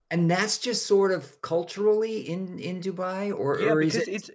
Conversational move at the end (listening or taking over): taking over